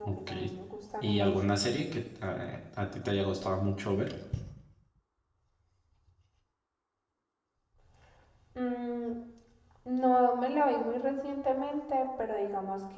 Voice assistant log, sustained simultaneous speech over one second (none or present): none